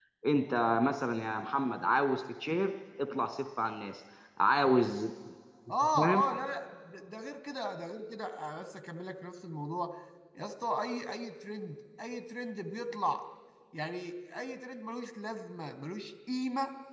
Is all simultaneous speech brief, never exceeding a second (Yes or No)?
Yes